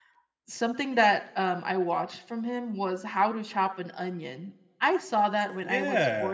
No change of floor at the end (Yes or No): No